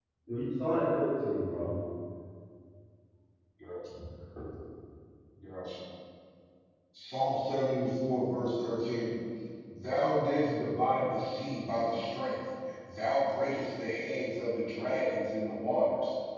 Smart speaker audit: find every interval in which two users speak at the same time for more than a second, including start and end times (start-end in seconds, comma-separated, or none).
none